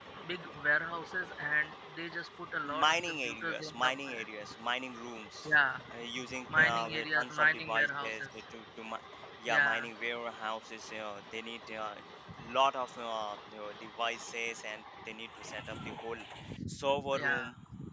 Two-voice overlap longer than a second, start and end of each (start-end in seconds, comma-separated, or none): 2.6-4.2, 6.5-8.3